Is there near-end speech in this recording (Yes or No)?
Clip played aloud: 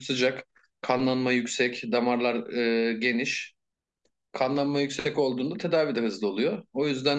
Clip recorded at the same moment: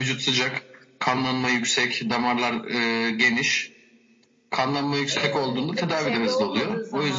Yes